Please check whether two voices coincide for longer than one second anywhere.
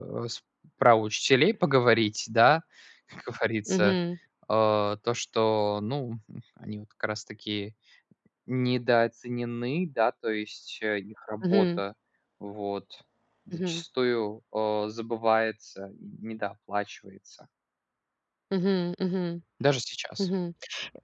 No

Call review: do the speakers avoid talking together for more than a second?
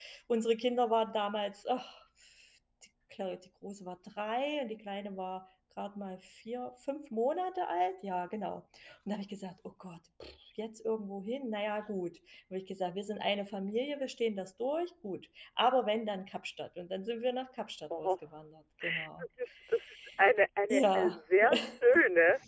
Yes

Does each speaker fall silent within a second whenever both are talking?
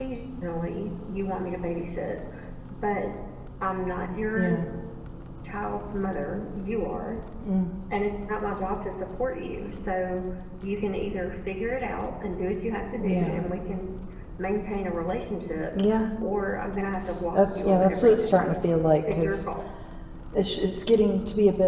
No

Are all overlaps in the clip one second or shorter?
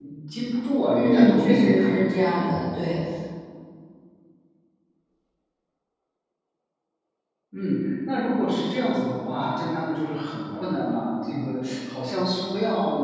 No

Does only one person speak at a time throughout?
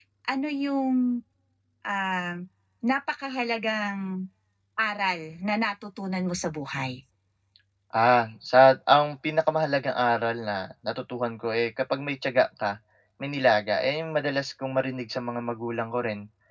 Yes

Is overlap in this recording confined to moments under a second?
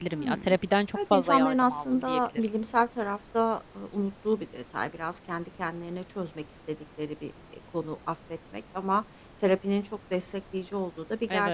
No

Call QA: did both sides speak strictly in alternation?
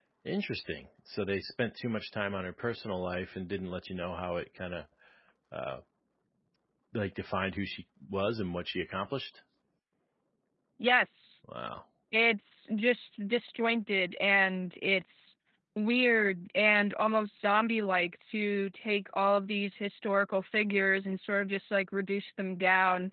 Yes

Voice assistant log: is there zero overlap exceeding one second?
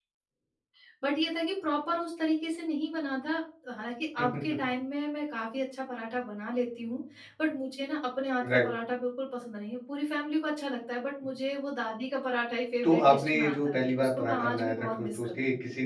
No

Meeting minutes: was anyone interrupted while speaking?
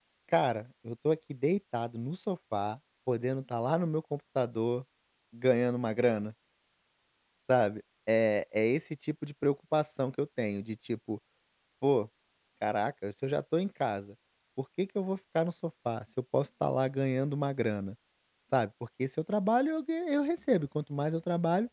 No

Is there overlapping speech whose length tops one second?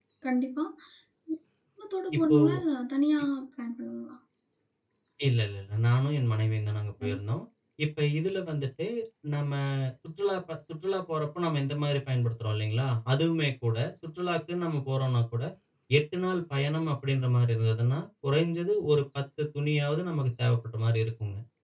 No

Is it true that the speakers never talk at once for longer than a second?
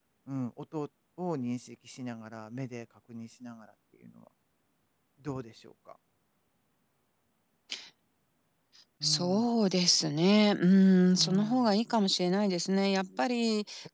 Yes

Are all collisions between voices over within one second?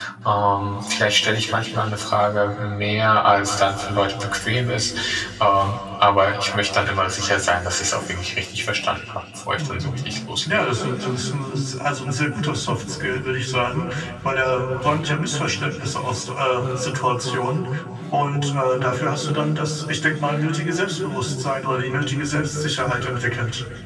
Yes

